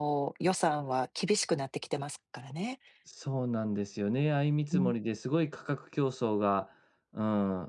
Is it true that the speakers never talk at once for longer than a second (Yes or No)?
Yes